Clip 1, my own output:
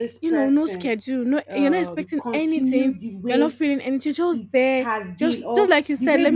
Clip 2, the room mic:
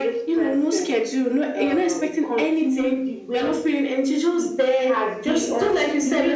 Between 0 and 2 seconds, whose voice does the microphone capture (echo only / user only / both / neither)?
echo only